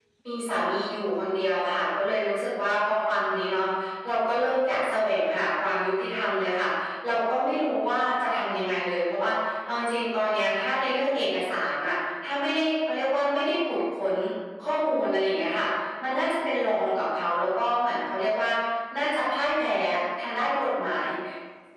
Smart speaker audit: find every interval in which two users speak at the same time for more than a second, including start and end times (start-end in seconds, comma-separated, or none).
none